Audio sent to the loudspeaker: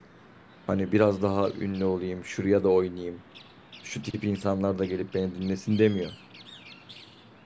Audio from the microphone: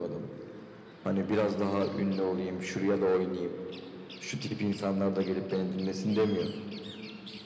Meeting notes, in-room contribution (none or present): none